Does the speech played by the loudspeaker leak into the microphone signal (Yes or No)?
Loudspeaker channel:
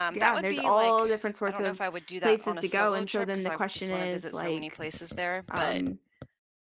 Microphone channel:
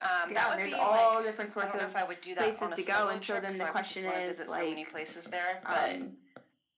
Yes